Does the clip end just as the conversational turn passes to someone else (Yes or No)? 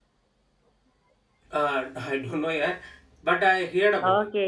Yes